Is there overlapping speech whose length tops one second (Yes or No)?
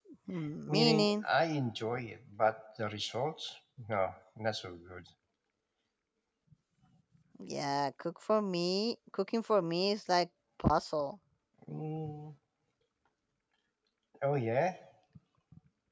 No